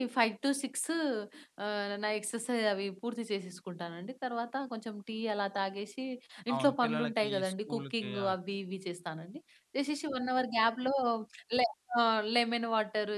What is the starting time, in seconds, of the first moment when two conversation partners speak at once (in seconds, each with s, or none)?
6.5 s